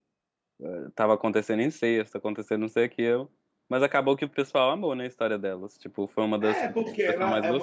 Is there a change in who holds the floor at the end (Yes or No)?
Yes